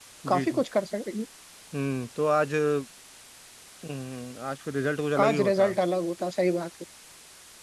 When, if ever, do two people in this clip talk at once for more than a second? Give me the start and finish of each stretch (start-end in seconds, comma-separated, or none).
none